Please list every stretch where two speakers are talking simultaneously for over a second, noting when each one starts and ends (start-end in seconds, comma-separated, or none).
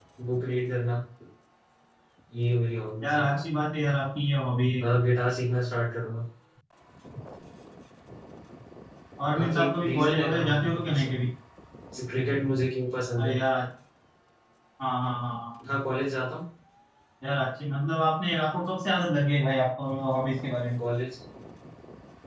9.4-11.1